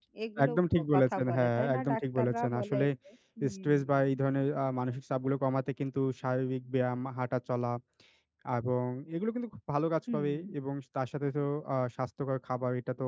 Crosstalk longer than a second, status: present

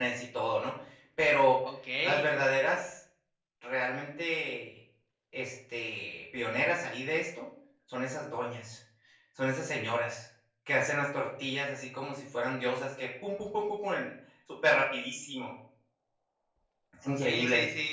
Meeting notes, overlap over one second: none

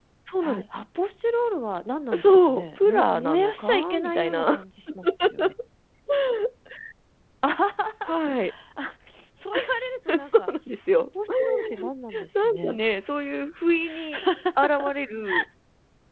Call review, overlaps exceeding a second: present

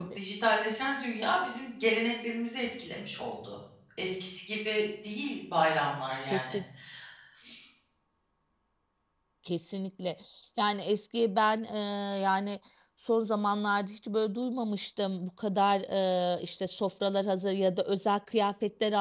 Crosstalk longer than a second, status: none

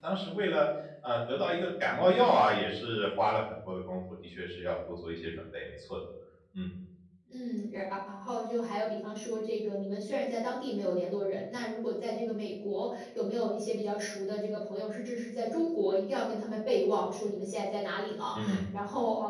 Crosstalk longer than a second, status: none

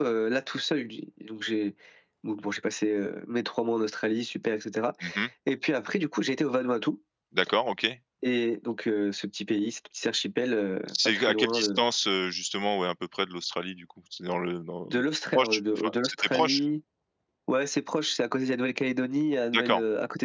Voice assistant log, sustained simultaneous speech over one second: present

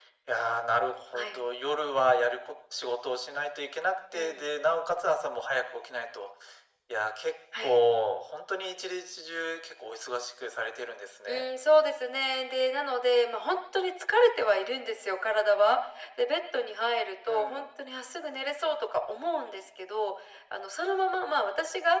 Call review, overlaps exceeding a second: none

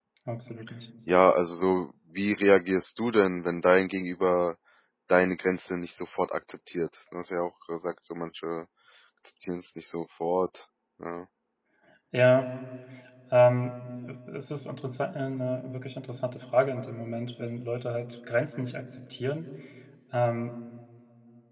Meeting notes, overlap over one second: none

